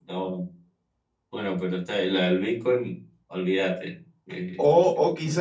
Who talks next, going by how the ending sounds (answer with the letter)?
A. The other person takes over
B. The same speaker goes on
A